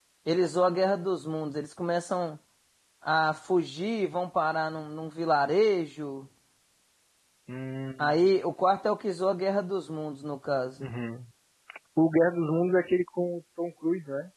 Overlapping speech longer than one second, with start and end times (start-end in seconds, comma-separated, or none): none